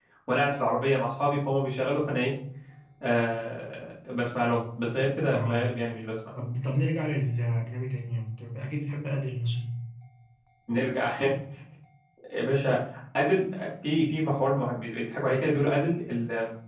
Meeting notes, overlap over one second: none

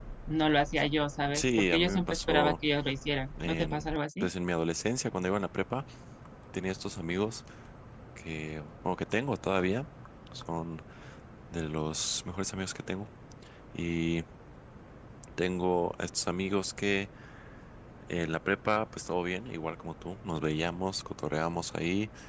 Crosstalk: present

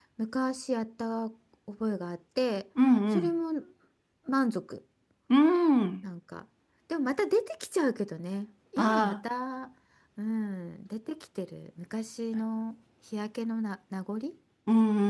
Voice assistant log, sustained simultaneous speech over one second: none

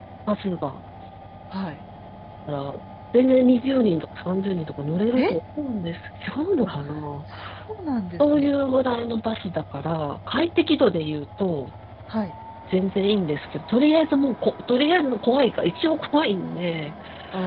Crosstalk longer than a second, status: none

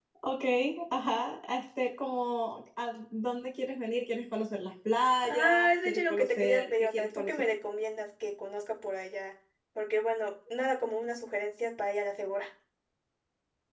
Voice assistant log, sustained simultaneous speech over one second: present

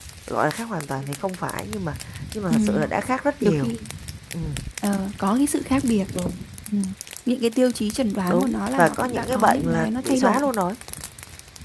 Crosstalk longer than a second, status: present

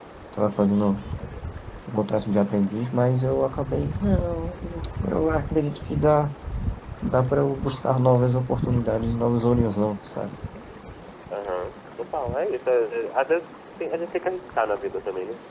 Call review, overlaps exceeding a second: none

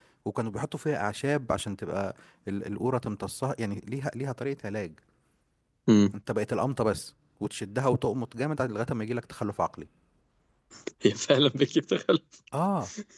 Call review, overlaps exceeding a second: none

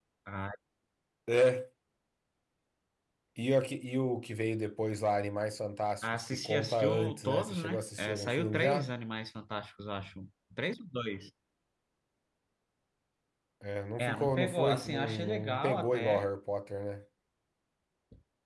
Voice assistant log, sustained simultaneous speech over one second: present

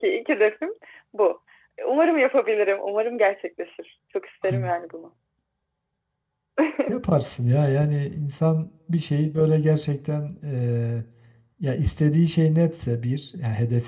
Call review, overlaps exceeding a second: none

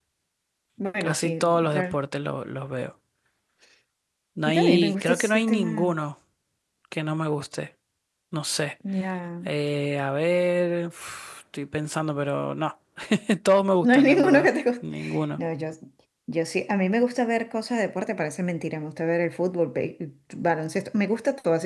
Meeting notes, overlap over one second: present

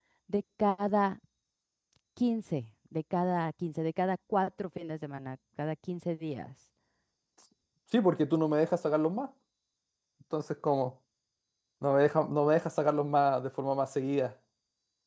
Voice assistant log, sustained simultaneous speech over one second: none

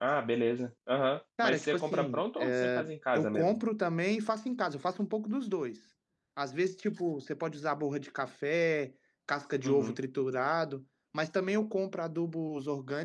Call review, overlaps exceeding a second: present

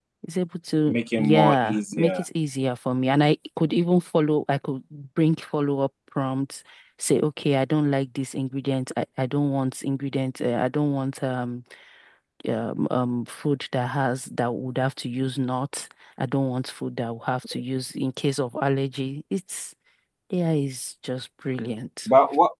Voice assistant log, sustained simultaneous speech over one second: present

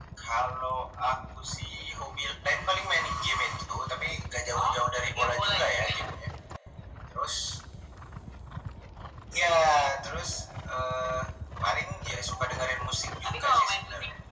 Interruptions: present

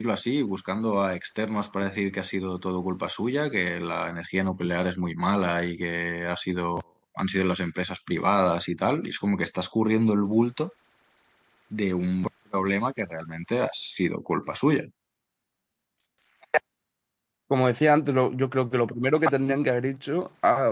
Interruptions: none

